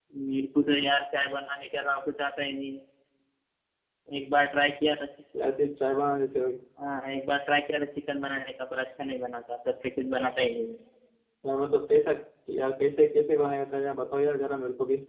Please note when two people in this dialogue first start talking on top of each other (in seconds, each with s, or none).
none